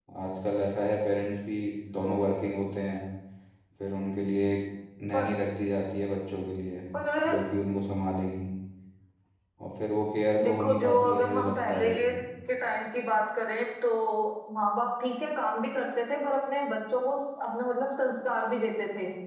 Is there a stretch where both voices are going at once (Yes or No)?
Yes